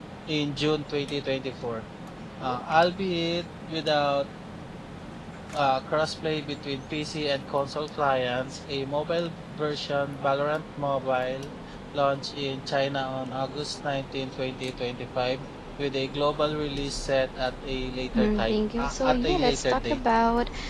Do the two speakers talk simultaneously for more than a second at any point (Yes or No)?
Yes